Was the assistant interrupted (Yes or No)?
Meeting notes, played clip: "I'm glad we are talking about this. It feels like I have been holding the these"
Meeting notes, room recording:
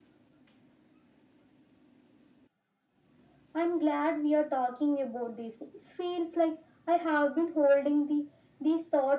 No